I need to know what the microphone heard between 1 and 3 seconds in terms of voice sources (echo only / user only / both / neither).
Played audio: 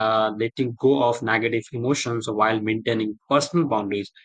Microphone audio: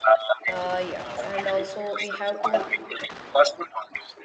both